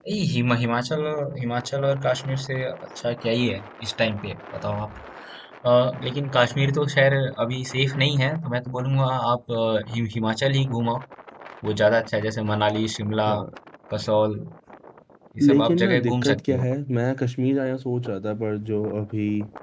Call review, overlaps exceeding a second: present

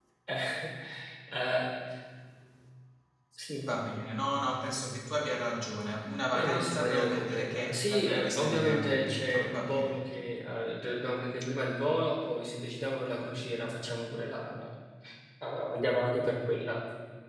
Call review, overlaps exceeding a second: present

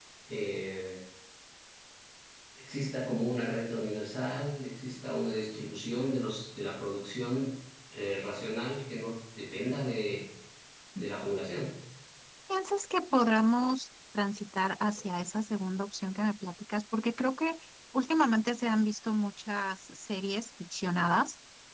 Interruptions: none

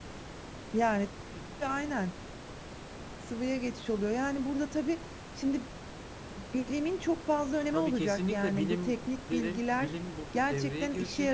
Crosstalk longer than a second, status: present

